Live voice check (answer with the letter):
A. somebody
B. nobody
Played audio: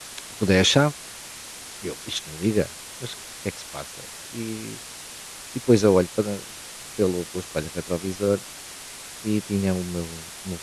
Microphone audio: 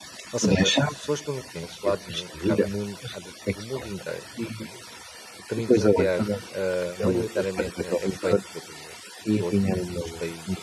A